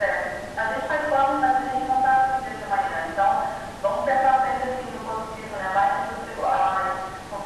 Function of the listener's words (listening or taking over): listening